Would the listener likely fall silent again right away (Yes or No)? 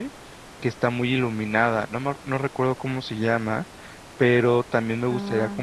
Yes